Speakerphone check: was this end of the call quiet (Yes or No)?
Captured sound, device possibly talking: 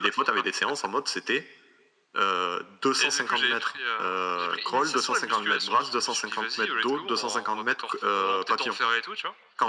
Yes